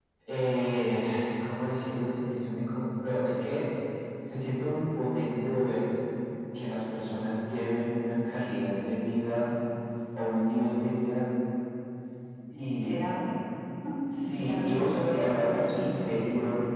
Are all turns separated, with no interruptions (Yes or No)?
No